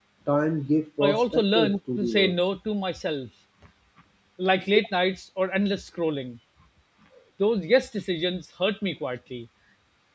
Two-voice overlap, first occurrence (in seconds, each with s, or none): 1.0 s